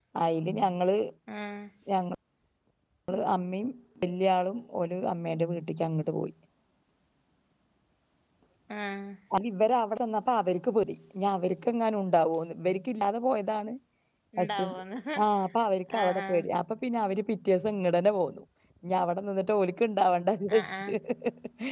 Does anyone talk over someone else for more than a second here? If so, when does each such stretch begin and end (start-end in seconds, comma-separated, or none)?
none